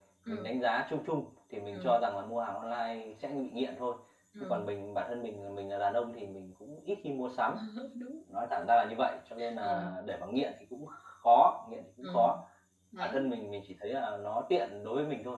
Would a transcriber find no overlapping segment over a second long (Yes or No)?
Yes